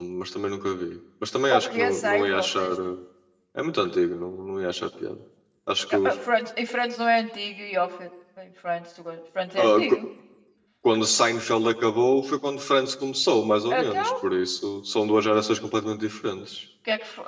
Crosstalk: present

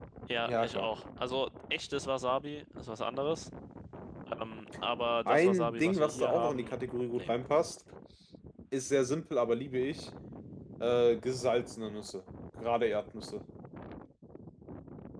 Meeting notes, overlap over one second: present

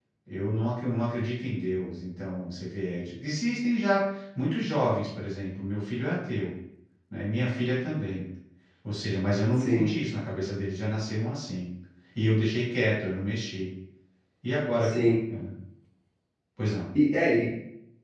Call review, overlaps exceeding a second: none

